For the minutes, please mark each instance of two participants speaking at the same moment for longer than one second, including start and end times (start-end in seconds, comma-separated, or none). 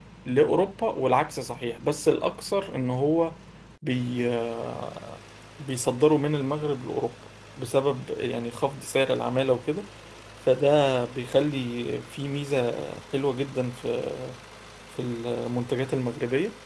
none